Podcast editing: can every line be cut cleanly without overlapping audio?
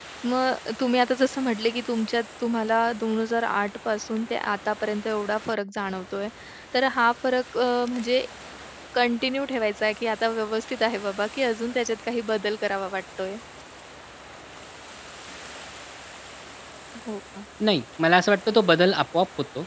Yes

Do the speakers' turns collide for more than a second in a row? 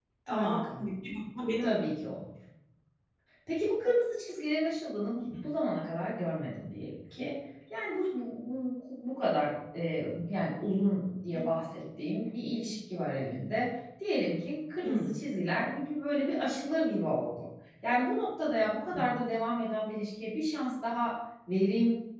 No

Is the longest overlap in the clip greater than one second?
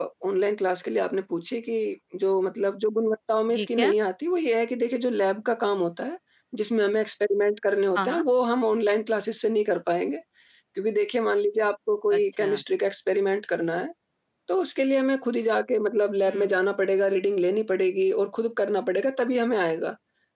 No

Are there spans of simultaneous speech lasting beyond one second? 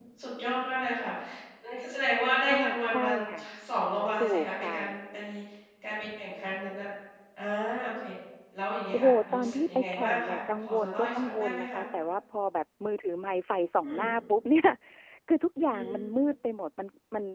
Yes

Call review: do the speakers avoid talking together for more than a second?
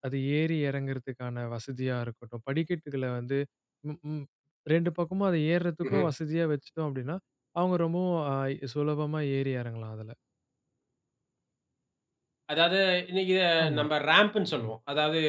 Yes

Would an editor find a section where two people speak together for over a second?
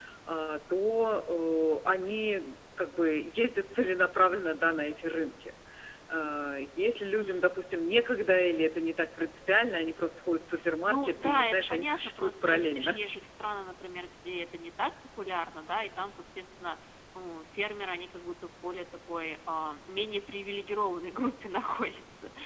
Yes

